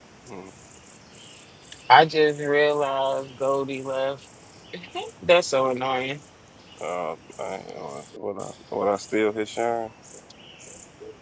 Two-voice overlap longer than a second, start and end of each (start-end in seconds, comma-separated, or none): none